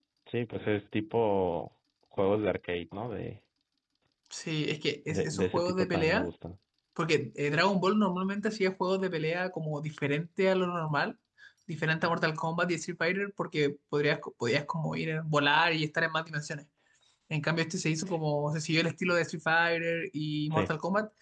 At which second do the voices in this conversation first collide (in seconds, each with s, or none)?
5.1 s